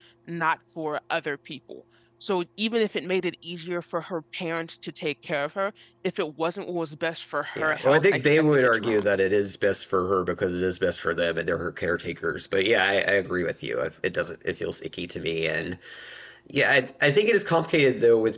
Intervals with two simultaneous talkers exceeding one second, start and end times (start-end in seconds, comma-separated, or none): 7.6-9.1